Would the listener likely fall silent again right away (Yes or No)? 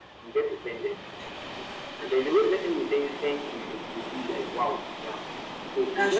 Yes